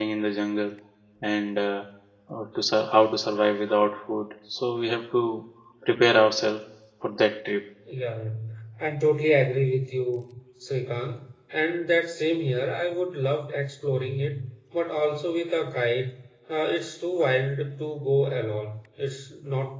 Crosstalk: none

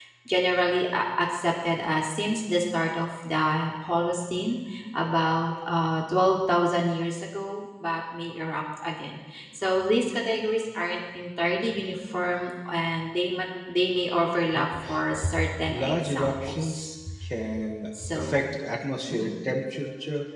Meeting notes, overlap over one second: present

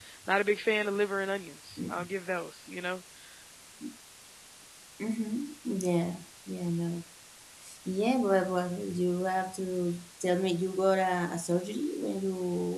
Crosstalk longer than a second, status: none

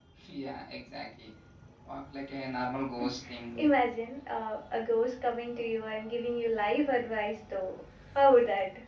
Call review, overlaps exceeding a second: none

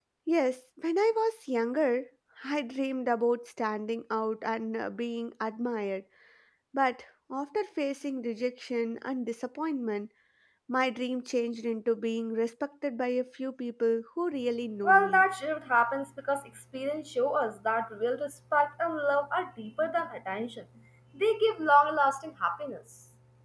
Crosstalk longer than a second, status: none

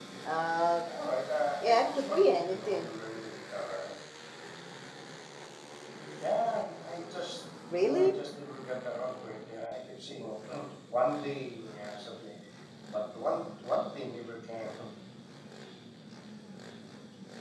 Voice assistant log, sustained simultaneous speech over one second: present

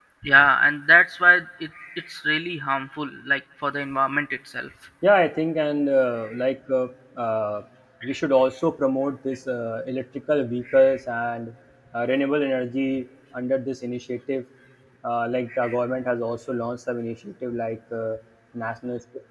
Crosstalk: none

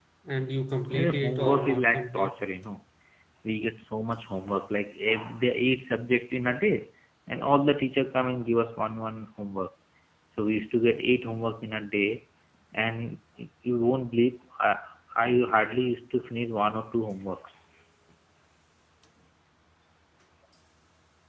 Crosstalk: present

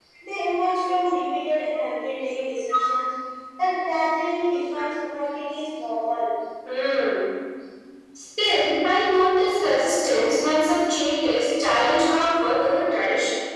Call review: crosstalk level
none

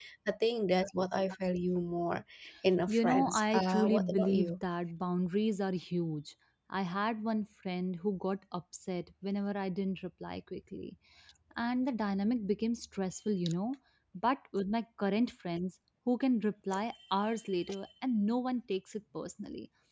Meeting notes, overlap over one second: present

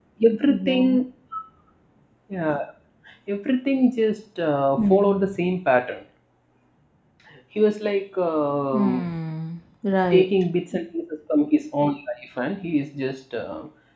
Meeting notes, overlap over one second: none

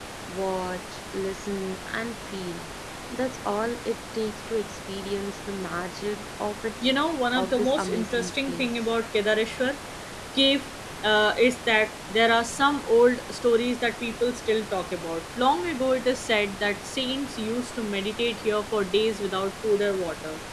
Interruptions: present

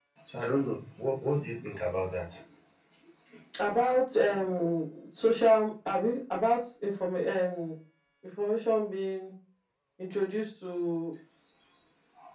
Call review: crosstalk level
none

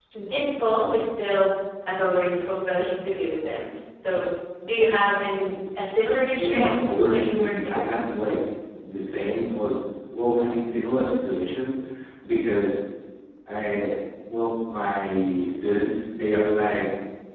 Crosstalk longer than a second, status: present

